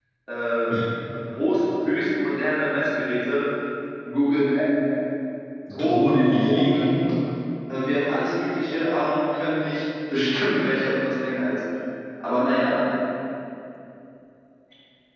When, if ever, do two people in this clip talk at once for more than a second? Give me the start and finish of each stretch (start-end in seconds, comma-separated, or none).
5.7-7.0